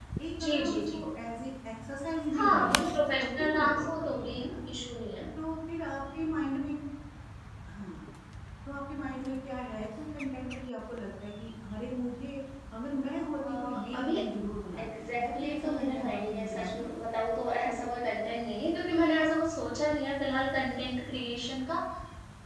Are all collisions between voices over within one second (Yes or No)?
No